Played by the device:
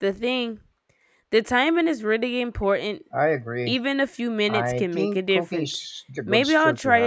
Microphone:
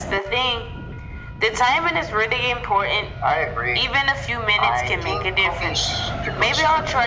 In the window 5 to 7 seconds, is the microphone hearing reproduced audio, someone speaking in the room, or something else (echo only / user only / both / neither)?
echo only